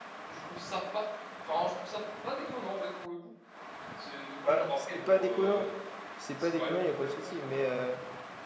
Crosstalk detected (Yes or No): Yes